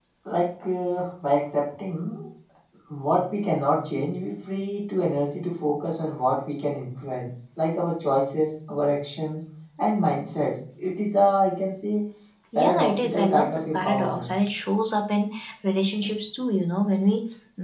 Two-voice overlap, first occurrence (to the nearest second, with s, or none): 13 s